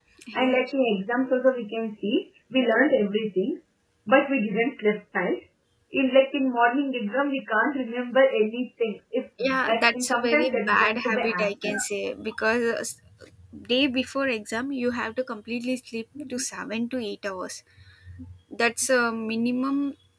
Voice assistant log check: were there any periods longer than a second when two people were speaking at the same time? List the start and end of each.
9.7-11.8

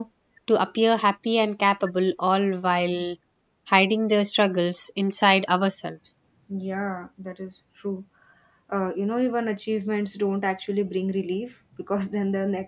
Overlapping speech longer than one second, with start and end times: none

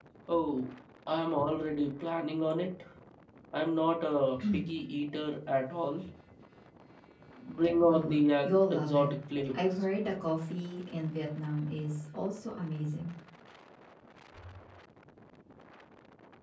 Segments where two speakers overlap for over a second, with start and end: 7.9-9.1

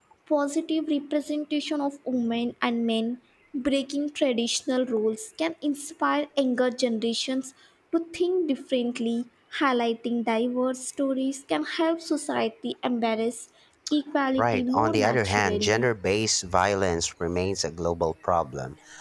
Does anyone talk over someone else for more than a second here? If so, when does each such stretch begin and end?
14.4-15.9

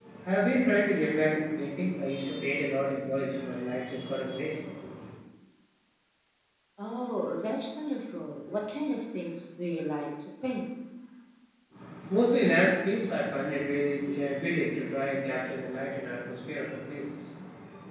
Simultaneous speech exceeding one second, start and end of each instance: none

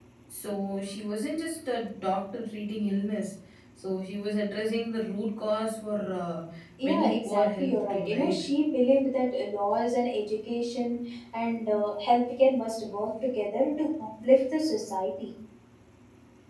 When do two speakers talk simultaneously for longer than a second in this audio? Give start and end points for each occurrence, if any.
6.8-8.4

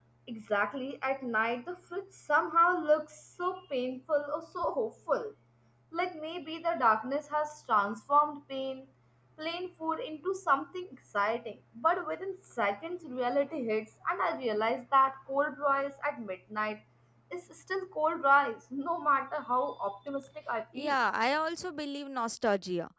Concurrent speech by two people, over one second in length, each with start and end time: none

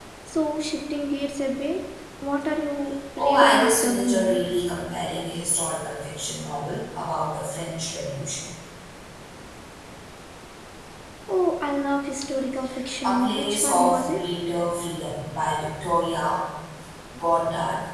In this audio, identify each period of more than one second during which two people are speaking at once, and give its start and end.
3.2-4.4, 13.0-14.2

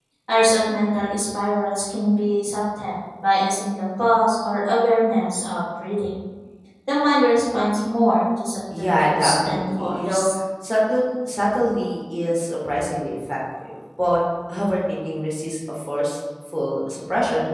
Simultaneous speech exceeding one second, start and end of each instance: 8.8-10.2

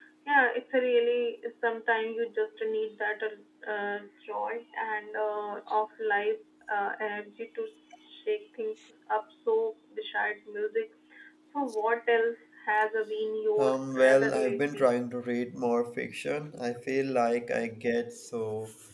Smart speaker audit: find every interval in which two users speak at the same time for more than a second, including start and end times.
13.6-14.9

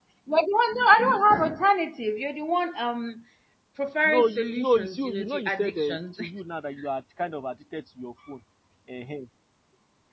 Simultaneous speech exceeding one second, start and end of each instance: 4.0-6.0

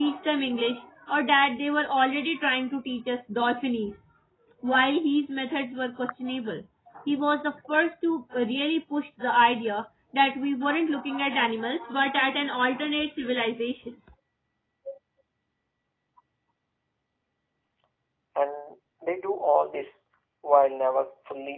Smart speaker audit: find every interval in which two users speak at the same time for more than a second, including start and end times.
none

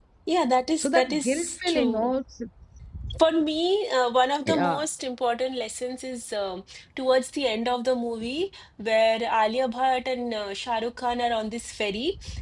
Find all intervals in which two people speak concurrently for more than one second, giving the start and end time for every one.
0.8-2.1

